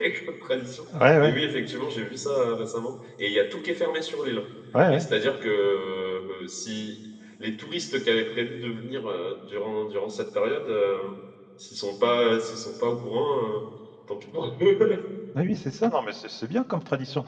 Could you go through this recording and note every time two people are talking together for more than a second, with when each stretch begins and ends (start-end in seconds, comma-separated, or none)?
none